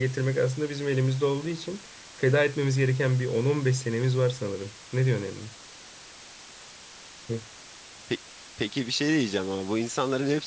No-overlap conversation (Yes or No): Yes